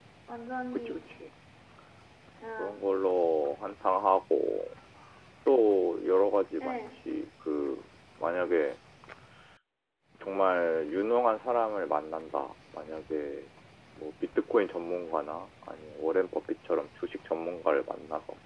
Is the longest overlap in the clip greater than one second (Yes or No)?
No